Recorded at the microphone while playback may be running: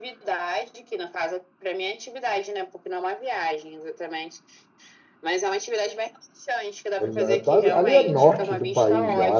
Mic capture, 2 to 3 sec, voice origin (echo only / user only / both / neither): echo only